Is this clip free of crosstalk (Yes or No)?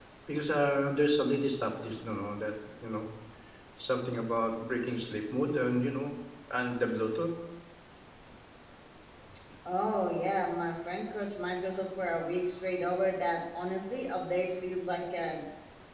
Yes